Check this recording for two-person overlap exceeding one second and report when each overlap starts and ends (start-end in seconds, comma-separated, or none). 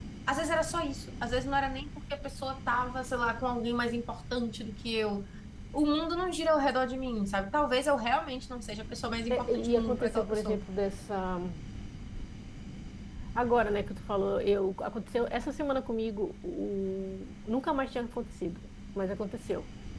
9.3-10.6